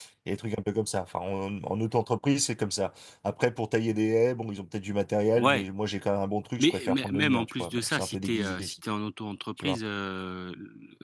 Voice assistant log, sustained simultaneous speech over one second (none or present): present